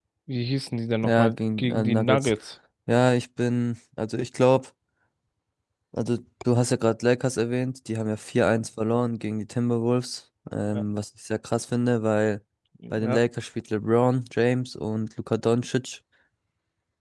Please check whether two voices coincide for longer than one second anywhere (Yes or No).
Yes